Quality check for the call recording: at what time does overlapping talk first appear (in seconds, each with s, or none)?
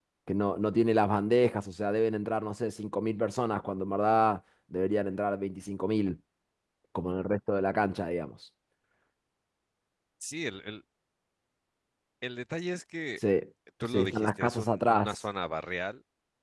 13.9 s